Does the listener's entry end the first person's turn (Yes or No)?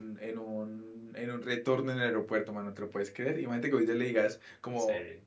No